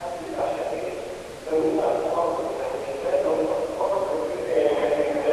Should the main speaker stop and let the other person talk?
Yes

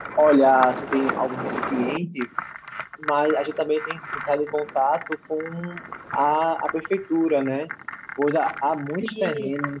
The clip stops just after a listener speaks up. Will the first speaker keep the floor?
Yes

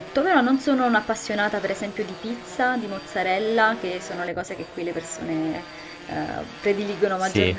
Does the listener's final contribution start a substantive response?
No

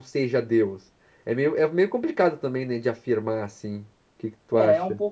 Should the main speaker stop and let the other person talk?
Yes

